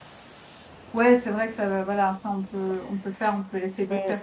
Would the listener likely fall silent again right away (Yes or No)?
No